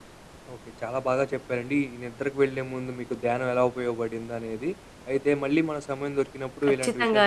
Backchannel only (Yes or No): Yes